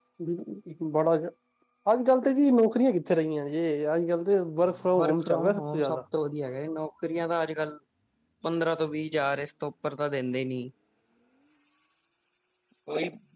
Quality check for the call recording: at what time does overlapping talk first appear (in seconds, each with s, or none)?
4.7 s